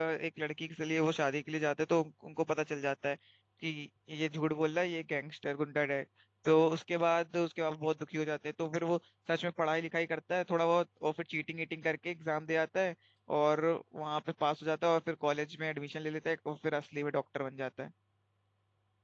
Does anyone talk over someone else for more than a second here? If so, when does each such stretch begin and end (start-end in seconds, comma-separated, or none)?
none